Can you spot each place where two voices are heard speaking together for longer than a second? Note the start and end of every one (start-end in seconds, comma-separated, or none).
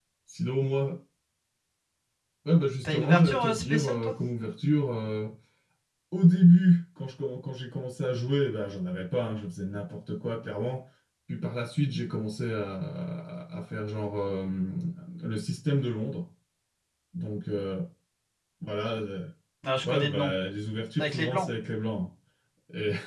2.8-4.1